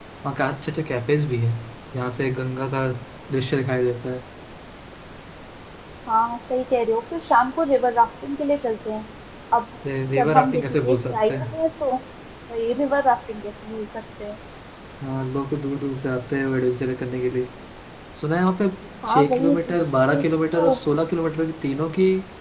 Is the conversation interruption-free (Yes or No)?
No